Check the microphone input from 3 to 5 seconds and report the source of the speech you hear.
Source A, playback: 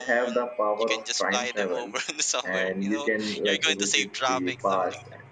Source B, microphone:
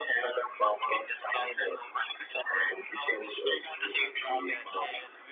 both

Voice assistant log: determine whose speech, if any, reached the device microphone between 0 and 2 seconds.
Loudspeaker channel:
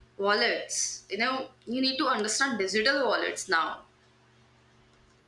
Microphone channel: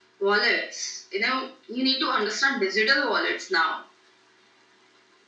echo only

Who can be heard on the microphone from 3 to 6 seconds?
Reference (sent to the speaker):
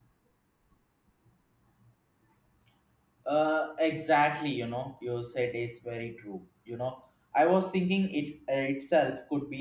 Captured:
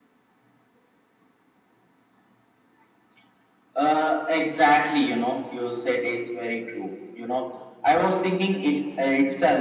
echo only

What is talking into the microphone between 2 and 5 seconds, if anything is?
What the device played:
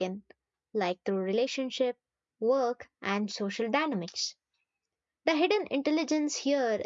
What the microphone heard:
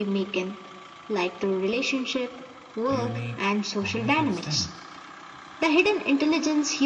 both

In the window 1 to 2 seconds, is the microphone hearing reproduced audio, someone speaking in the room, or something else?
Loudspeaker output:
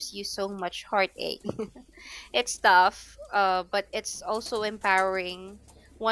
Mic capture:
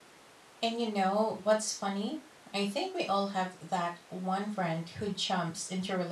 user only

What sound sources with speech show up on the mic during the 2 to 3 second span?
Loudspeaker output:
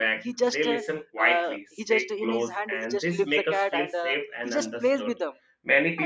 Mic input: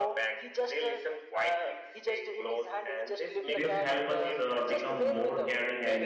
echo only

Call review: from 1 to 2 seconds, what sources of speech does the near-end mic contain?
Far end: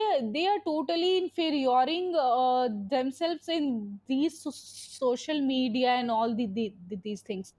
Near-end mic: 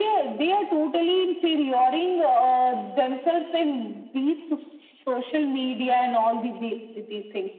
echo only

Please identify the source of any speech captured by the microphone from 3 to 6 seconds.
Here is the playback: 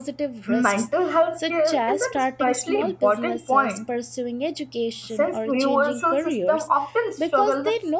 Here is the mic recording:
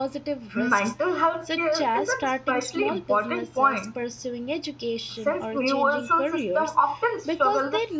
echo only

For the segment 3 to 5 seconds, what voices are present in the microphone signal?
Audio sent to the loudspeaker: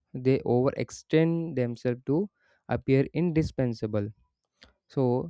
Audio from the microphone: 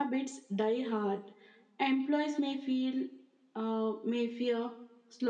user only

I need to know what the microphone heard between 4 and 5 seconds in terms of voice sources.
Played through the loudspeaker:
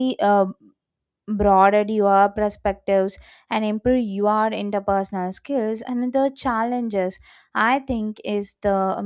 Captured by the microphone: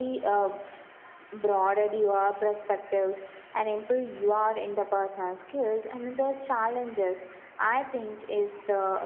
echo only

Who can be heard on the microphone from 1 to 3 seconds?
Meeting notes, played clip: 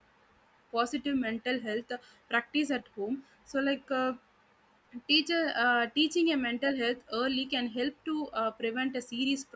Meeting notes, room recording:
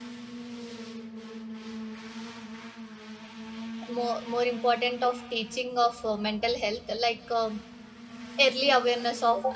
neither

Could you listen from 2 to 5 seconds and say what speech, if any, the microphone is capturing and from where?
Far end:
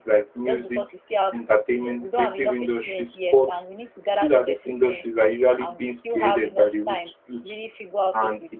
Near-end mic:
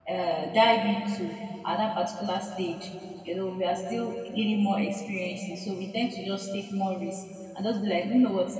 user only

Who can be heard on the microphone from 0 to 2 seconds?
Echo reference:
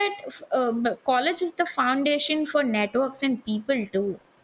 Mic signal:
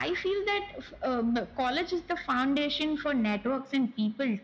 echo only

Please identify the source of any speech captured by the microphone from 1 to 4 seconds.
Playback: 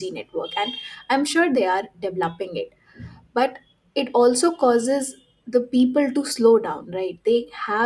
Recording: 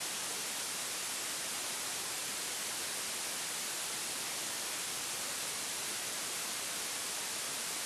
neither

